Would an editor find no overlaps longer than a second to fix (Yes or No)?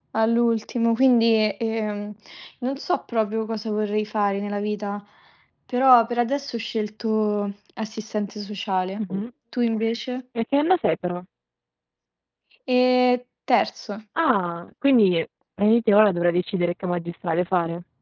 Yes